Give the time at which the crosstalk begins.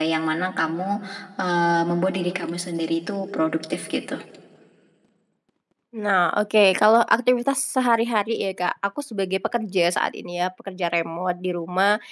none

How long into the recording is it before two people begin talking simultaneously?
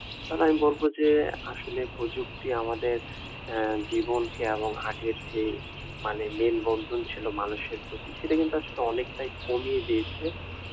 none

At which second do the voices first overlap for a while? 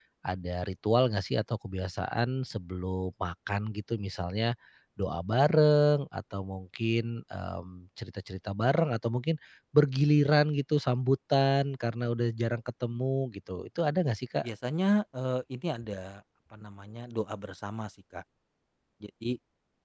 none

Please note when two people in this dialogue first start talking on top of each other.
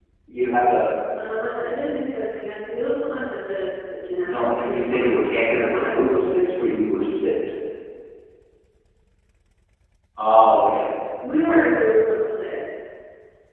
4.2 s

